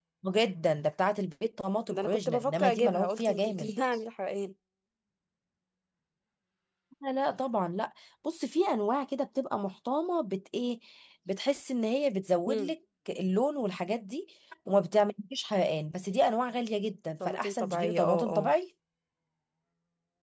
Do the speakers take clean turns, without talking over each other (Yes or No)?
No